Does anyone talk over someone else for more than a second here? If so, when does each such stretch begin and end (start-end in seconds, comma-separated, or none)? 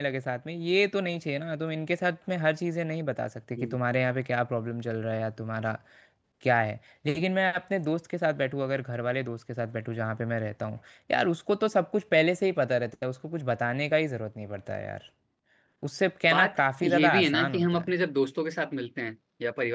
16.3-17.9